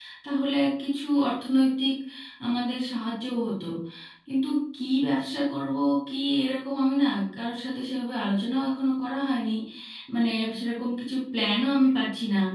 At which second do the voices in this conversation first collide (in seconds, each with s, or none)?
none